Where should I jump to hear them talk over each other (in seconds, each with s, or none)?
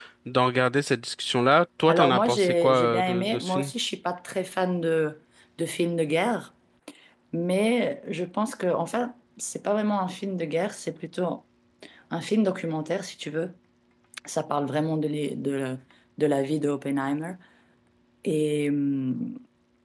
1.9 s